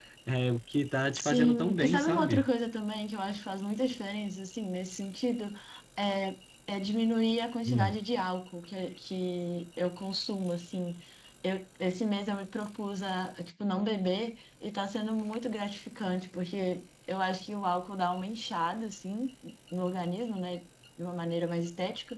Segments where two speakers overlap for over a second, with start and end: 1.1-2.5

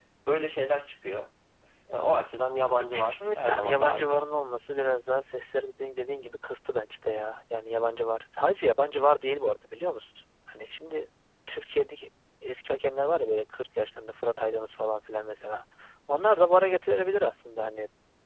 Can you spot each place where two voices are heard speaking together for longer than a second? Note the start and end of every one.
2.9-4.3

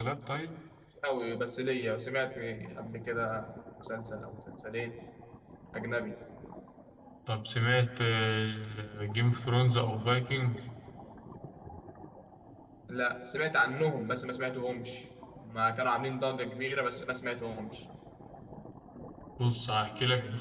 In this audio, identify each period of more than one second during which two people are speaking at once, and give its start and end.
none

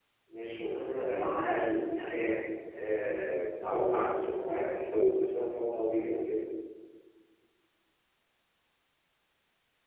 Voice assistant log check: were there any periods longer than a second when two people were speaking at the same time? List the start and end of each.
0.7-2.3

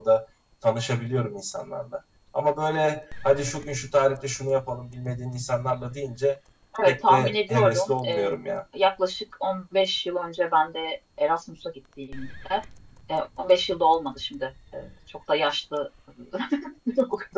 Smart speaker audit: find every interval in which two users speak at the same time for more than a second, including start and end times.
6.8-8.3

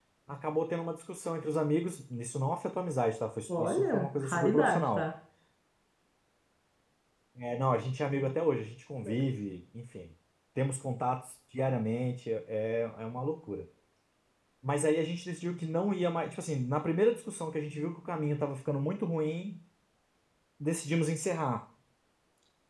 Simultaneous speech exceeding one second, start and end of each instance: 3.5-5.0

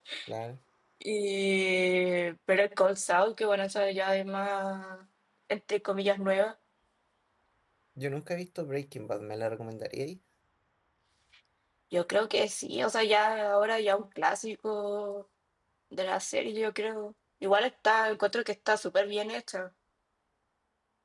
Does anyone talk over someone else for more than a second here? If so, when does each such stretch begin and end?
none

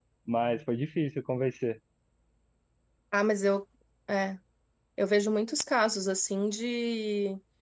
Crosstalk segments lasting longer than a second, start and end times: none

